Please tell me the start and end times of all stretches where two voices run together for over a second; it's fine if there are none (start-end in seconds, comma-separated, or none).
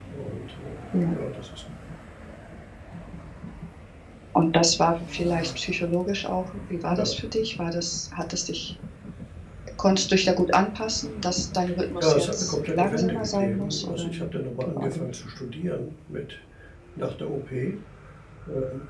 12.0-14.1